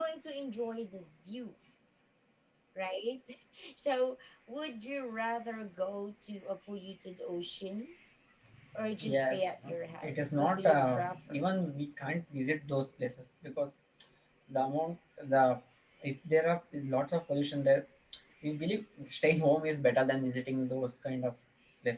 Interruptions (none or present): present